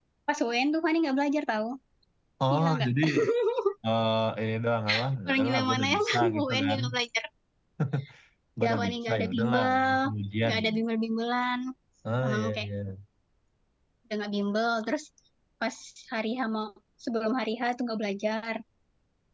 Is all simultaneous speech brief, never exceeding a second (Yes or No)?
No